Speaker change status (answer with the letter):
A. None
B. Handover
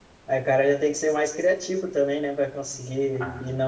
A